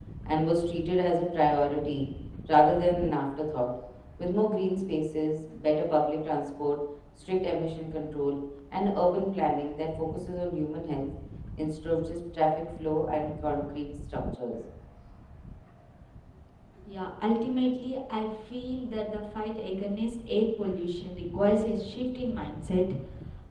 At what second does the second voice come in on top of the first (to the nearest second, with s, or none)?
none